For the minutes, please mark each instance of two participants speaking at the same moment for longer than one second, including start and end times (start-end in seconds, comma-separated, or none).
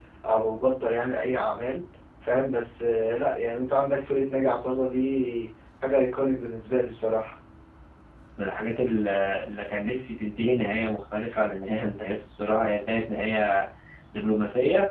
none